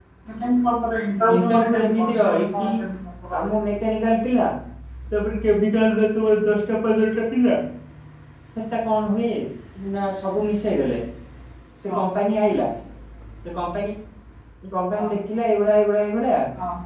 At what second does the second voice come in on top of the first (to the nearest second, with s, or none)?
1 s